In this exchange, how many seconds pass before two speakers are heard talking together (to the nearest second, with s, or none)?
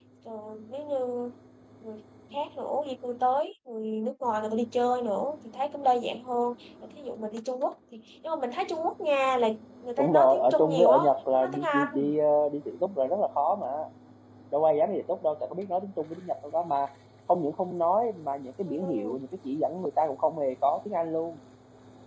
10 s